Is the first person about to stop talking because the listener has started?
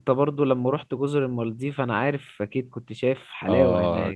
Yes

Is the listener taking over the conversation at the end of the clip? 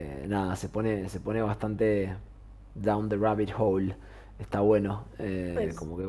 No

